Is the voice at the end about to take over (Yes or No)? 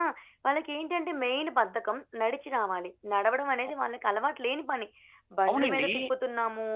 No